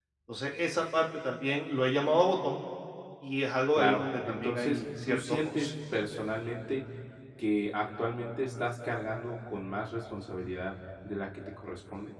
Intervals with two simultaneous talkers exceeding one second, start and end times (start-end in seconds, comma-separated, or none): 3.8-5.7